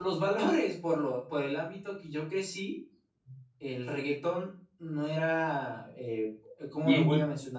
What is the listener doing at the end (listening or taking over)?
listening